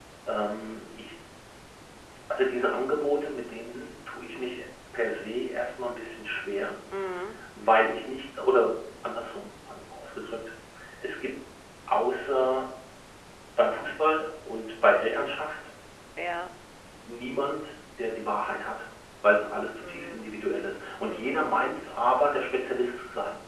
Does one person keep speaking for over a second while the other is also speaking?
No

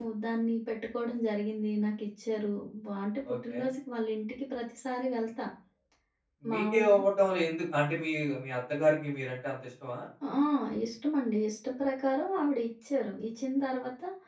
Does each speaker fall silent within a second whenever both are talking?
Yes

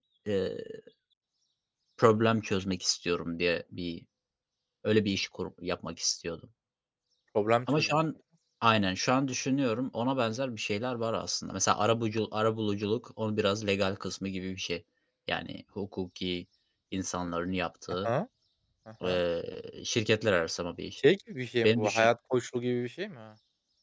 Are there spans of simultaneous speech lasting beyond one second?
No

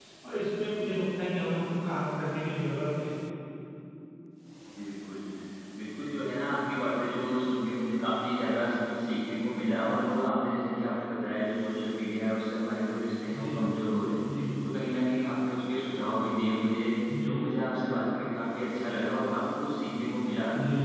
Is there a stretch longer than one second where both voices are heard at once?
No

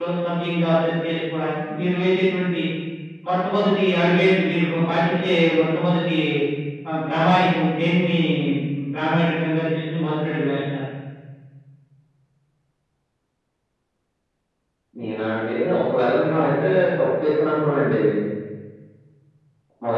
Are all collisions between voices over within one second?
Yes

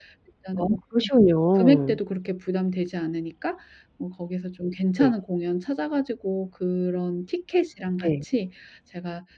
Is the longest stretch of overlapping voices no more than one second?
Yes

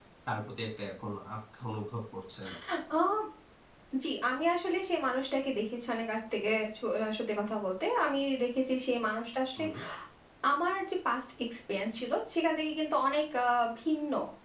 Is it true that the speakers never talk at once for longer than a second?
Yes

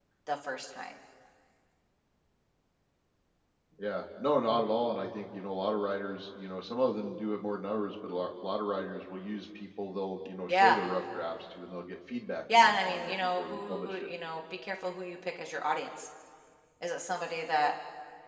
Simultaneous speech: Yes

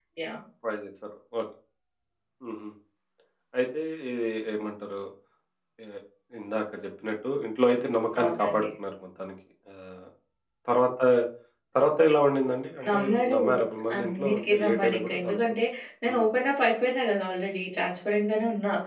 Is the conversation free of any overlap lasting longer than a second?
No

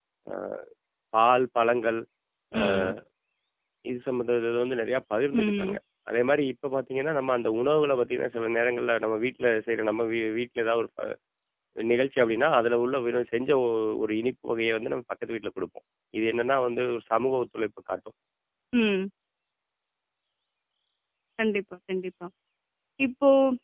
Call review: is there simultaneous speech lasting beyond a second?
No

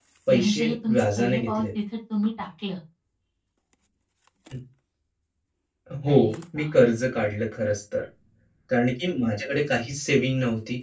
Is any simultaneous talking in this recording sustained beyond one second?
Yes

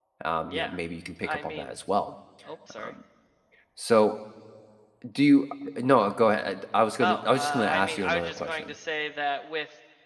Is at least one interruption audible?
Yes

